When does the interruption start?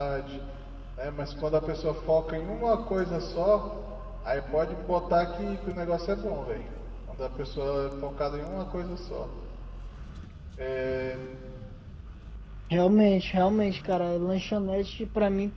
none

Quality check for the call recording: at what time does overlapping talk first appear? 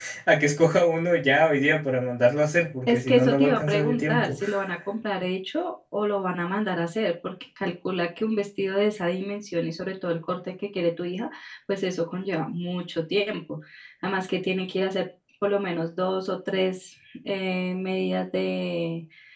3 s

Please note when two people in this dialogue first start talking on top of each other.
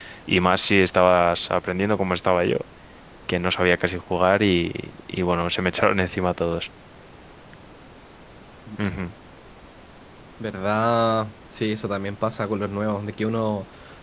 none

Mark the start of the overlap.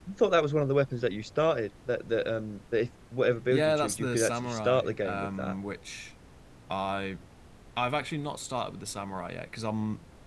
3 s

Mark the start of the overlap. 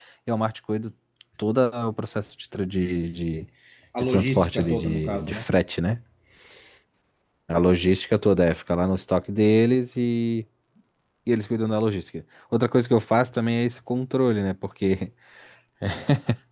4 s

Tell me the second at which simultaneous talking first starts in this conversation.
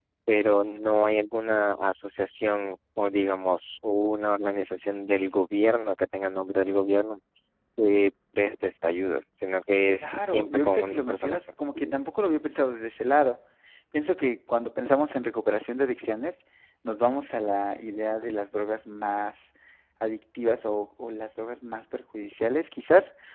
10 s

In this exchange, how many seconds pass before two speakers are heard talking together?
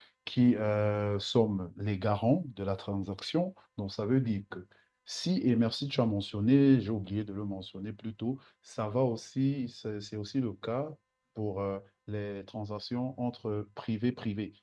none

